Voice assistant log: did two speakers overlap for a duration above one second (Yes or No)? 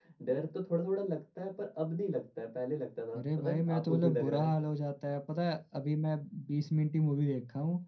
Yes